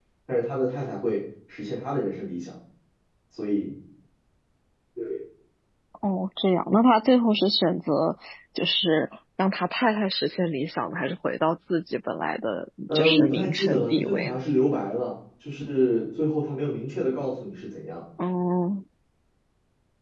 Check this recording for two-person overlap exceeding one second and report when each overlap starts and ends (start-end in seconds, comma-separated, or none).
12.9-14.4